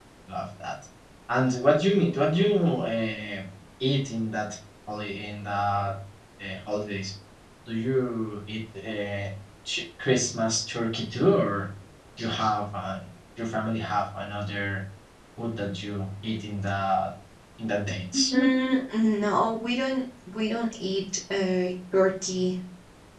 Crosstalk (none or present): none